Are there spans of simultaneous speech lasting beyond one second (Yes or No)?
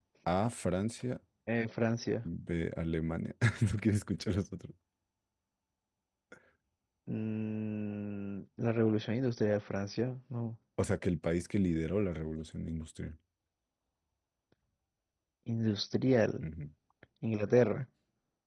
No